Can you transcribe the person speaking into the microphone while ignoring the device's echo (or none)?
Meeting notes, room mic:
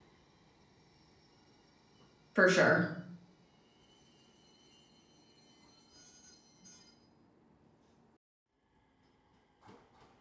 For sure.